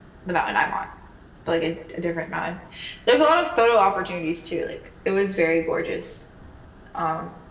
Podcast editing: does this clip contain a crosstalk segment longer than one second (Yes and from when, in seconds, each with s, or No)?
No